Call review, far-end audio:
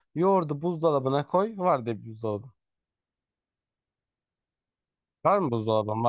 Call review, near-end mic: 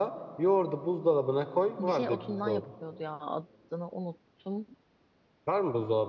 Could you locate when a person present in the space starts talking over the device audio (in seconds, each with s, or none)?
1.8 s